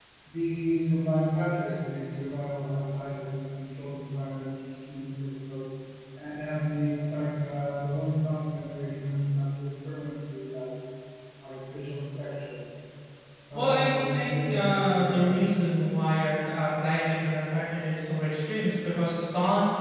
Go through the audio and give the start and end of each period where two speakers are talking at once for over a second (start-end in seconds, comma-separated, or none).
13.5-15.5